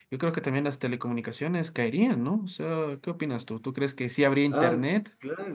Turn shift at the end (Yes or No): Yes